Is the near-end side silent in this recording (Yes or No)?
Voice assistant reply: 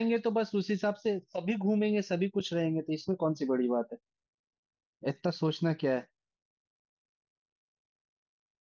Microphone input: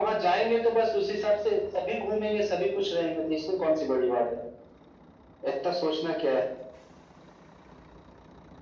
Yes